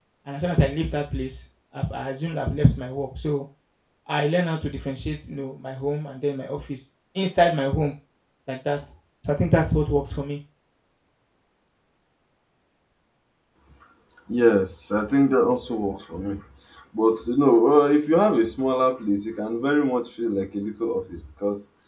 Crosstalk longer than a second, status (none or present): none